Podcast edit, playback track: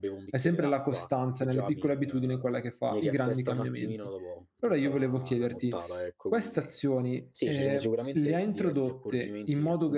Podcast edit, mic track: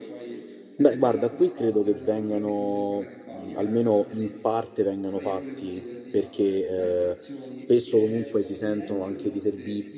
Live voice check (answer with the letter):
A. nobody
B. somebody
B